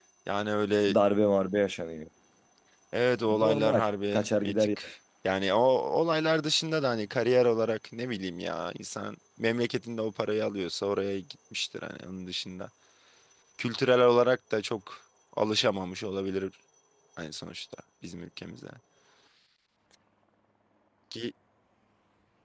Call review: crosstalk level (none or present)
present